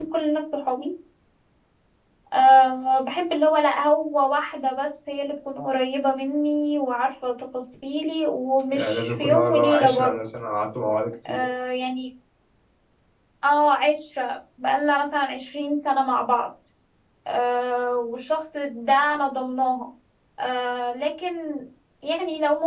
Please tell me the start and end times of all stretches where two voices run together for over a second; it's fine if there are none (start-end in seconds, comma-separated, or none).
8.7-10.2